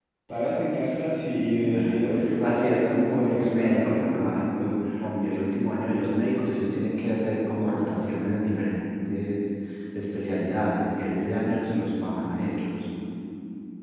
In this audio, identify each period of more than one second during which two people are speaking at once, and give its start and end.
2.4-4.0

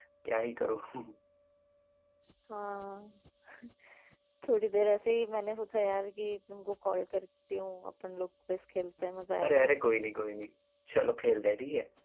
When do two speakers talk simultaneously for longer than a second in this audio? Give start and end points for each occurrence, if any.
none

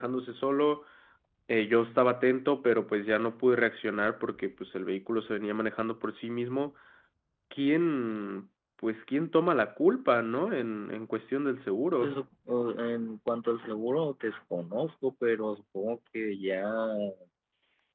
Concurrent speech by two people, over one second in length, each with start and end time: none

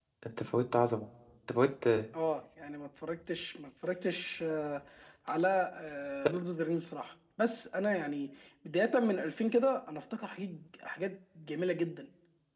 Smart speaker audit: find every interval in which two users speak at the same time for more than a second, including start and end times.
none

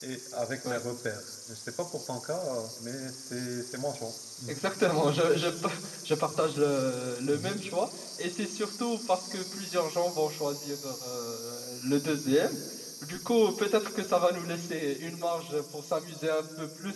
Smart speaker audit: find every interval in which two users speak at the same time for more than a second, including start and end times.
none

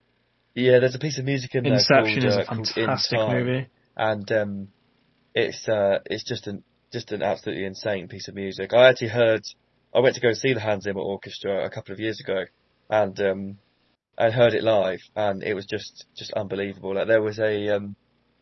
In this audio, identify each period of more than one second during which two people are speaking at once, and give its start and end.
1.6-3.5

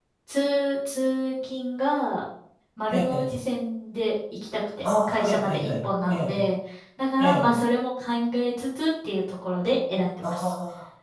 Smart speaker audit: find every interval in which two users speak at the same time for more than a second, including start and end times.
4.8-6.4

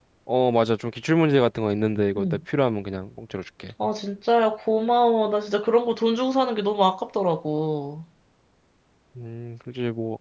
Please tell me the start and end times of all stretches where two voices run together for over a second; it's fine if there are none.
none

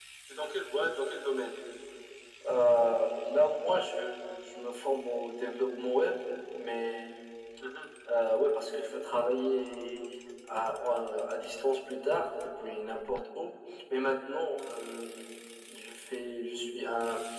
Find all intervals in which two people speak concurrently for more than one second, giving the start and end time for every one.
none

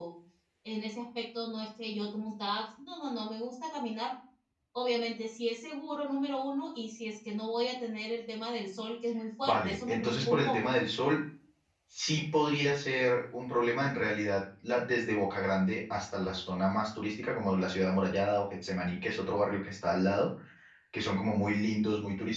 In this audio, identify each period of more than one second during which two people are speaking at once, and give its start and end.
9.4-10.6

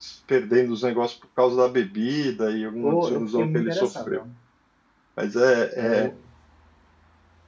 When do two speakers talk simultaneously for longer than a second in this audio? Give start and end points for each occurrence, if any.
2.8-4.2

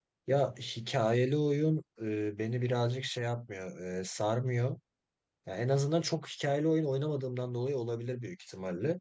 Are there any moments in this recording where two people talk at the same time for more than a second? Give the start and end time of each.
none

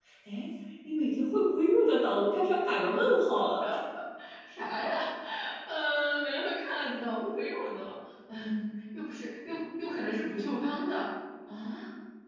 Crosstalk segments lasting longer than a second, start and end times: none

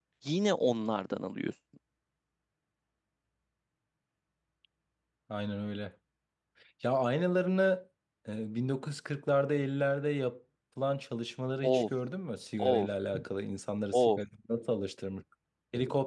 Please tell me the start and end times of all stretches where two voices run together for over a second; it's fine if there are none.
none

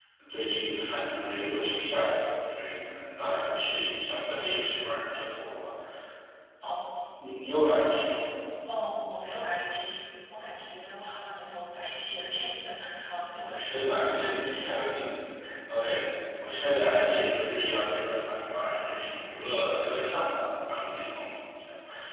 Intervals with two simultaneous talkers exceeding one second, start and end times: 13.4-14.9

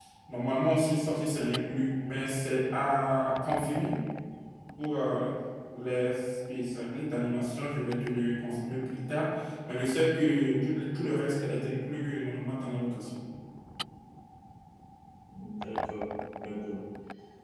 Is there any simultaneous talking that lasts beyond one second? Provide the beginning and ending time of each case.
none

